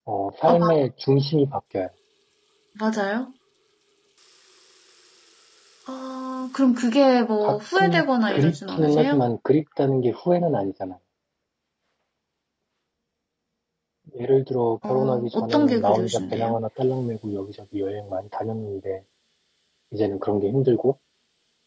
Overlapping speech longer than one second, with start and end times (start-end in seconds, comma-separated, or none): 7.4-9.2, 14.9-16.6